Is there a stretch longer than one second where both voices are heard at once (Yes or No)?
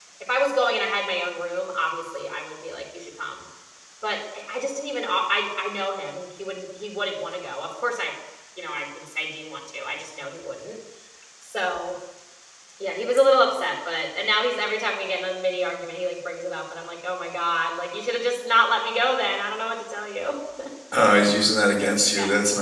No